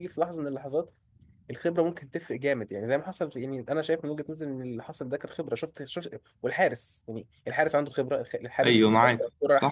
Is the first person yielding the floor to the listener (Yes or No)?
Yes